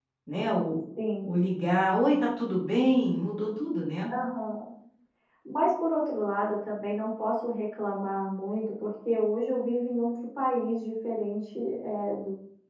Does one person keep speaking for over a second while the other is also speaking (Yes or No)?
No